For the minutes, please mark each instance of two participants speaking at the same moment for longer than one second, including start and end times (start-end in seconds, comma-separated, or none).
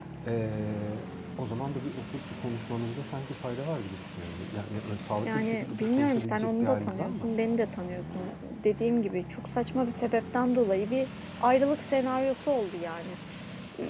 5.2-7.3